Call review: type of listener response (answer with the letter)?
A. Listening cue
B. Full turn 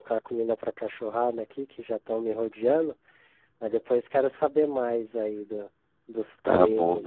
B